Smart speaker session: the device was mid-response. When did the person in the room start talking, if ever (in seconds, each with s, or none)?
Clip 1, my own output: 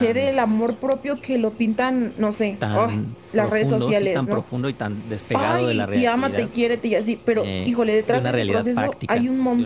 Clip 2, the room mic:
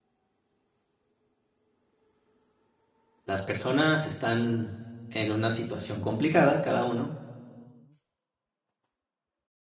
3.2 s